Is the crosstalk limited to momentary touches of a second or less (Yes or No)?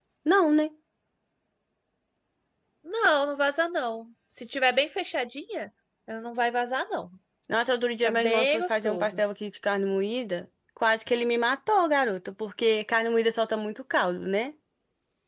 No